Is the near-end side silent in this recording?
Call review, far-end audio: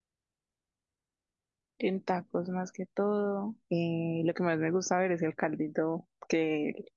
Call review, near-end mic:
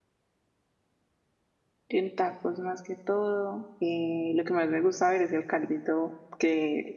Yes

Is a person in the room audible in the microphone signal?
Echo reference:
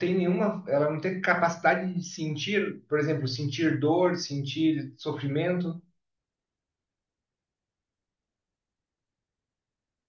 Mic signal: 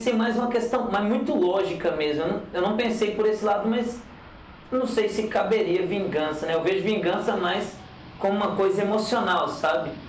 Yes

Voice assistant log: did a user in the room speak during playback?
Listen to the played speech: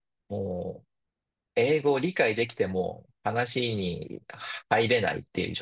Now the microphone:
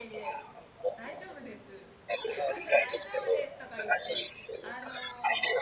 Yes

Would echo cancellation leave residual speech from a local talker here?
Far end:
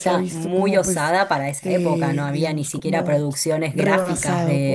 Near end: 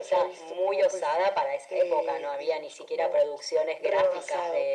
No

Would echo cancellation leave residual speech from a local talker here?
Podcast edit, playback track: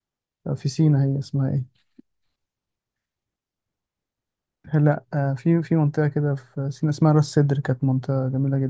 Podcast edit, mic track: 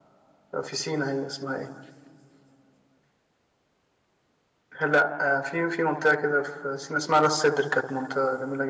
No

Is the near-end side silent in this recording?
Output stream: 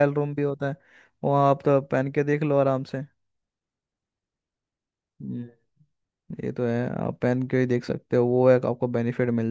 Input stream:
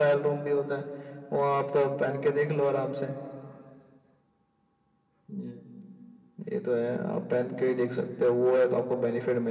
Yes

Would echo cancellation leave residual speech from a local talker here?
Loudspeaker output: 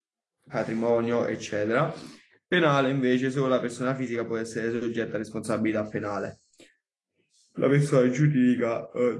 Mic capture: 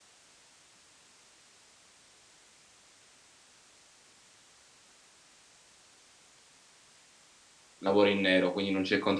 Yes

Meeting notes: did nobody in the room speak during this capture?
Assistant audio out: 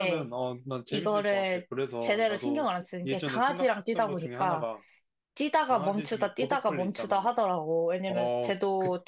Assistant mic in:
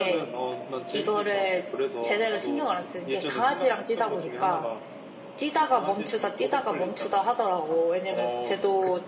Yes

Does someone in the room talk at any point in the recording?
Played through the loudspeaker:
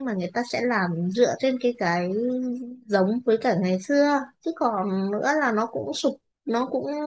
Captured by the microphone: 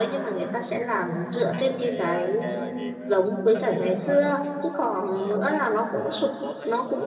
Yes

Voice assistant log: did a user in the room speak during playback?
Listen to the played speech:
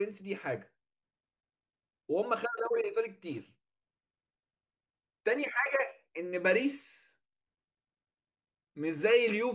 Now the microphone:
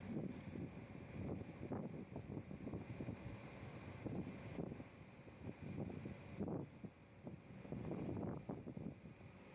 No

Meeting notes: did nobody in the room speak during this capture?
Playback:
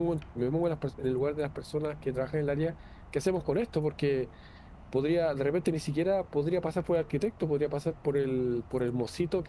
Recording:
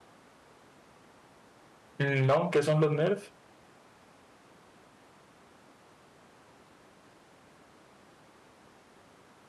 No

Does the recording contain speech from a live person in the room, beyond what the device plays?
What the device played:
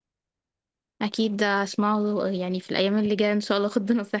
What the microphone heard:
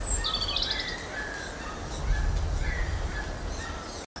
No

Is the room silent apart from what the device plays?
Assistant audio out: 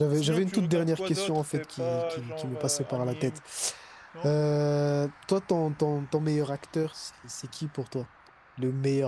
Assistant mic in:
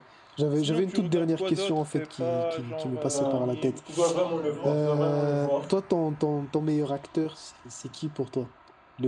No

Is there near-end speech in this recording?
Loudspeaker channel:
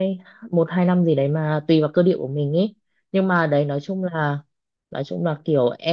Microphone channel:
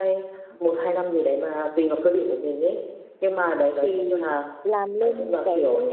Yes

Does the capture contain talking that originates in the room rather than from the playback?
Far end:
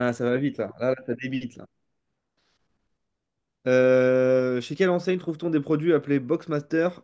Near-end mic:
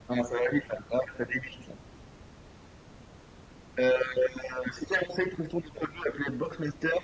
No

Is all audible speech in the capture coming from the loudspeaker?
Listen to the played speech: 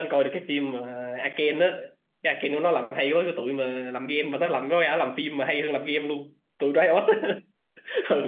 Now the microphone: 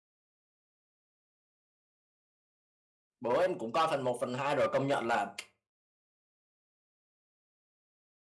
No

